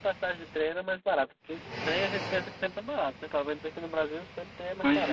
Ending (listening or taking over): taking over